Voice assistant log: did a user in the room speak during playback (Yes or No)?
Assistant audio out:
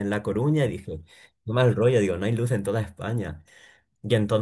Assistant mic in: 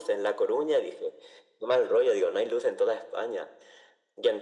No